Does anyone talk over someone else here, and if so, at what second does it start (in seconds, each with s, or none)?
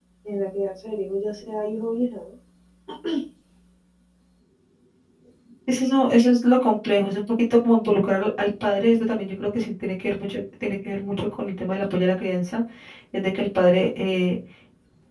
none